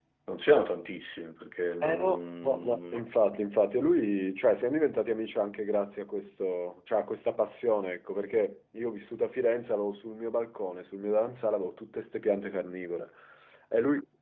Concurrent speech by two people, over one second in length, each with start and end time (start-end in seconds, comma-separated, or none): 1.8-3.0